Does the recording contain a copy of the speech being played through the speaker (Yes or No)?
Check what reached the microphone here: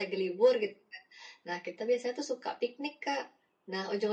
Yes